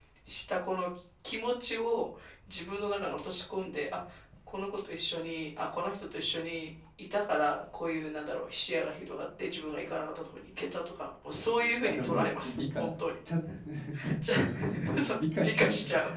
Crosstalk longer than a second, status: present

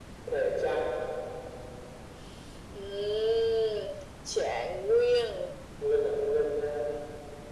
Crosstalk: none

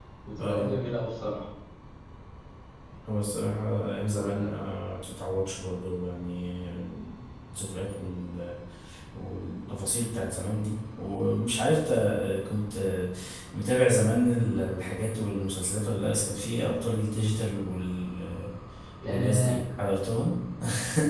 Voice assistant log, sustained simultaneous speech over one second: none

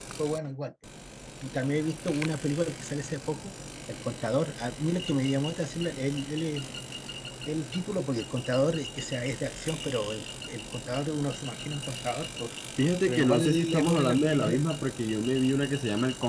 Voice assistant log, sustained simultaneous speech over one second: present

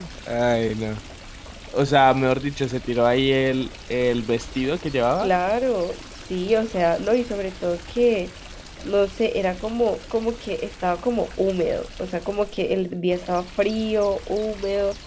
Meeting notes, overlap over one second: none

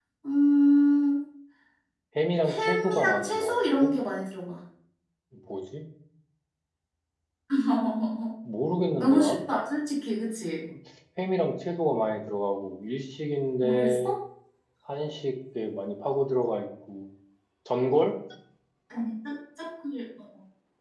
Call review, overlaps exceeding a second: present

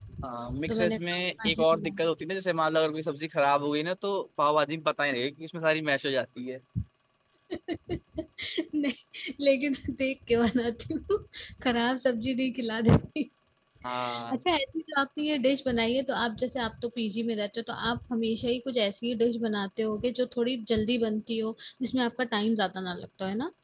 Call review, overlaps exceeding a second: present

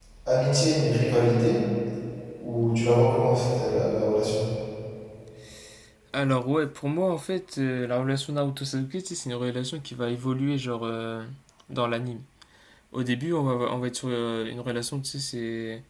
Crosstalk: none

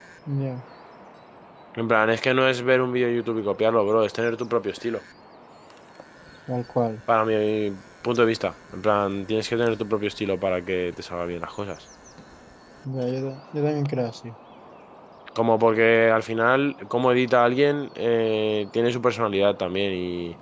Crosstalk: none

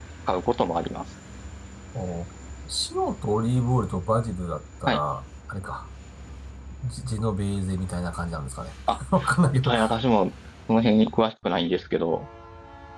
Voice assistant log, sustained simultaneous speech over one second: none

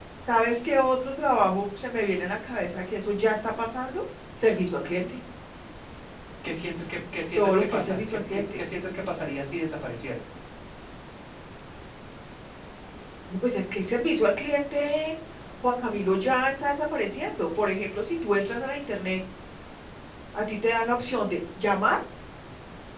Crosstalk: present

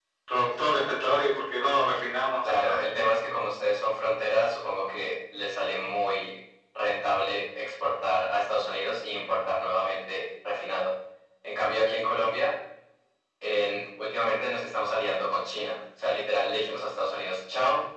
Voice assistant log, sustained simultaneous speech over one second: none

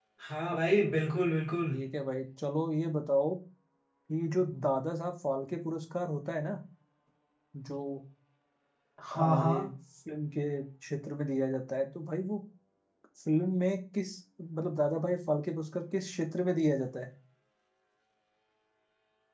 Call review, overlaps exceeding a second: none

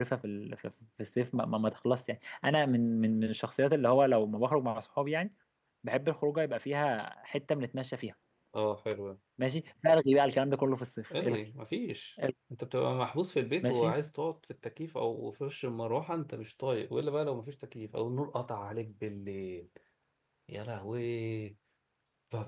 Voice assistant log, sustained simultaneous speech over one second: none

